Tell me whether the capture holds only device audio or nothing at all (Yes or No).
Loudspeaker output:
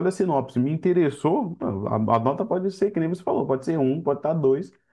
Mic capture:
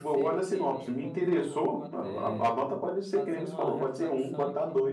No